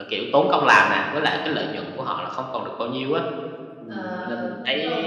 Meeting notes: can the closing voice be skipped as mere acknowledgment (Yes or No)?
No